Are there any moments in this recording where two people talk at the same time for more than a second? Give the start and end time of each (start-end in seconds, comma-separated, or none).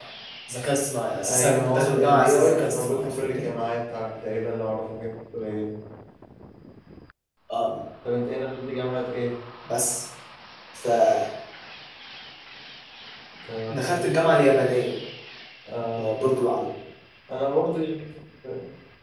1.3-3.5